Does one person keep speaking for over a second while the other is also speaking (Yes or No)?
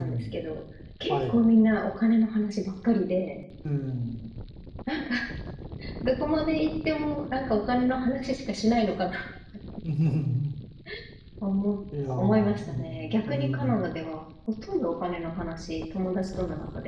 Yes